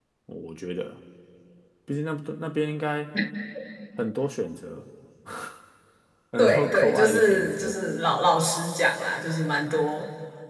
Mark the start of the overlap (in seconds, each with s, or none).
6.4 s